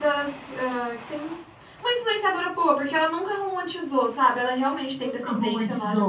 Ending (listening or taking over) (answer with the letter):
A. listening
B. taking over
B